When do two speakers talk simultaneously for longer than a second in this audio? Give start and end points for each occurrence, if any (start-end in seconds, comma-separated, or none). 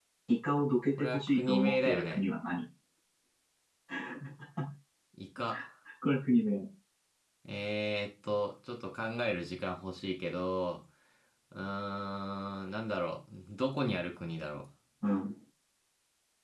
1.0-2.2